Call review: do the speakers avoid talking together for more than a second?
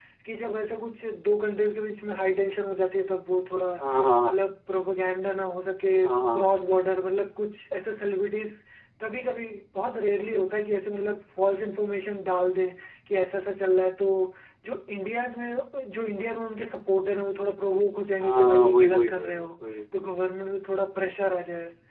No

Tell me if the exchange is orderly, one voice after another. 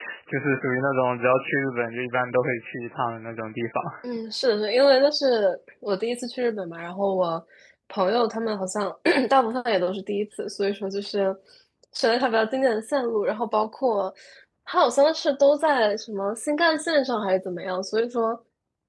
Yes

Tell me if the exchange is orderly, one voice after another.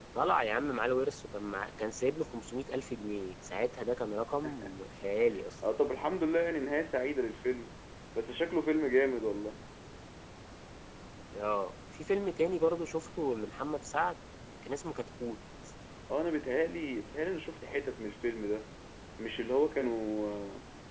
Yes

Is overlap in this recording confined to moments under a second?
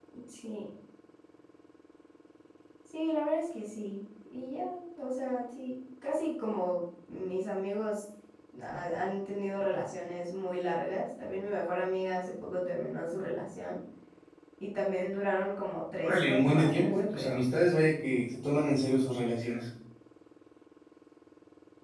No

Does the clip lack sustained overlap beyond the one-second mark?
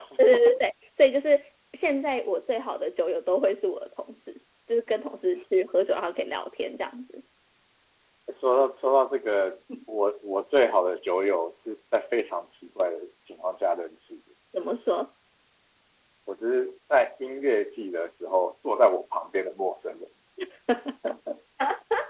Yes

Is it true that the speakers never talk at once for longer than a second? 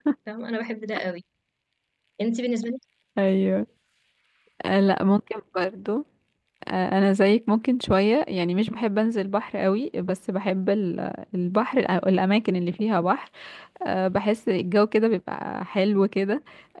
Yes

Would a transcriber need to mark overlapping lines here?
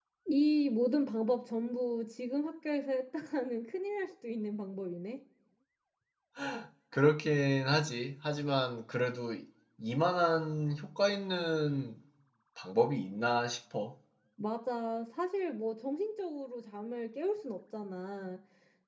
No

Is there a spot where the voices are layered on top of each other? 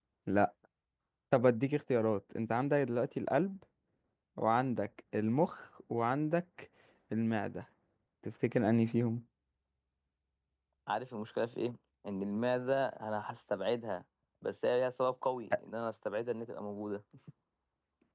No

